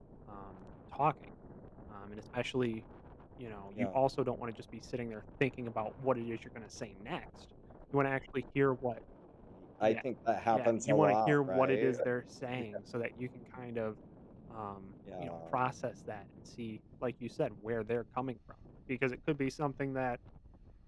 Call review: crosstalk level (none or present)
present